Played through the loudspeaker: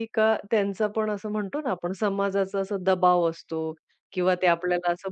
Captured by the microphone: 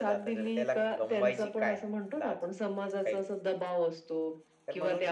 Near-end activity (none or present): present